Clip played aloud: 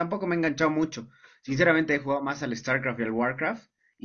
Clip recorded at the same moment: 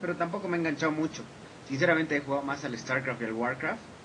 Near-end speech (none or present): none